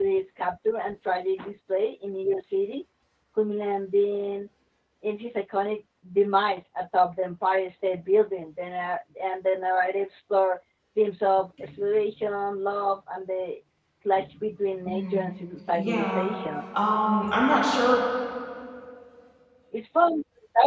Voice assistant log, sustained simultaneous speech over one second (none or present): none